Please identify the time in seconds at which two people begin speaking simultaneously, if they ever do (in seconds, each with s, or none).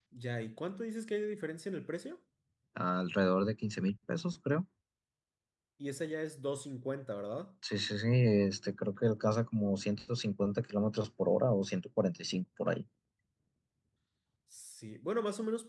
none